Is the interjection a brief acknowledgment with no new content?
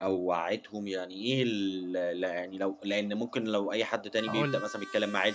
Yes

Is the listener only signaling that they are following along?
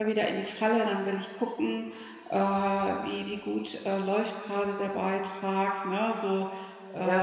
No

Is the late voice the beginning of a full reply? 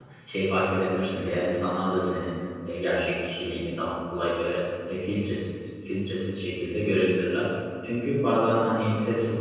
No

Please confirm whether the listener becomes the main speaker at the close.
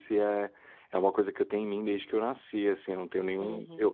Yes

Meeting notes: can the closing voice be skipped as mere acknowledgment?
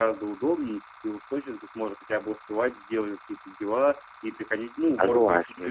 Yes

